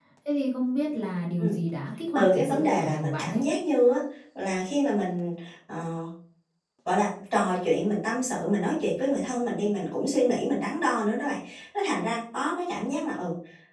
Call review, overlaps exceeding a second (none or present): present